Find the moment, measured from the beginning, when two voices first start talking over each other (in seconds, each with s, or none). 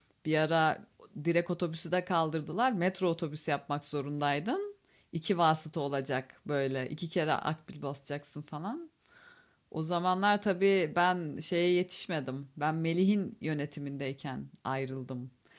none